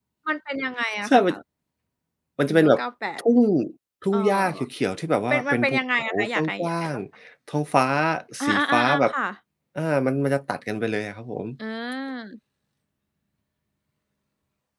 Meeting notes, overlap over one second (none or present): present